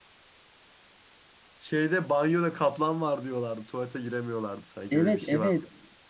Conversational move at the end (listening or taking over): taking over